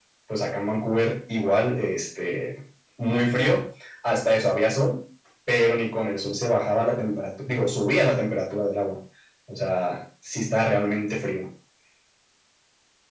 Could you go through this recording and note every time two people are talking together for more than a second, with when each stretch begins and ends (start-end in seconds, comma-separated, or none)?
none